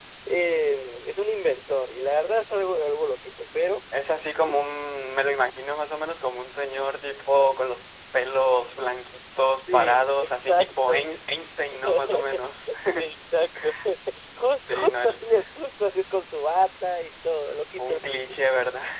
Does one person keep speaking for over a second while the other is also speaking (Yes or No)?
Yes